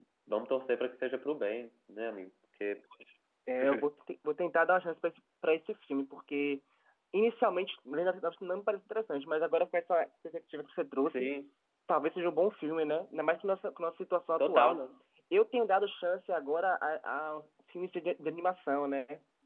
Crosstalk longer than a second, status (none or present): none